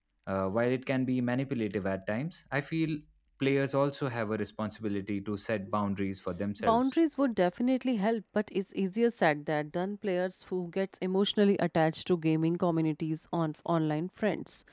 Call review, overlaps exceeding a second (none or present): none